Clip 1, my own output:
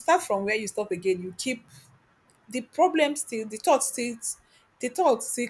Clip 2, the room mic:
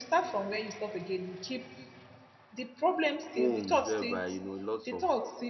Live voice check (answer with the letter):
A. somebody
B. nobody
A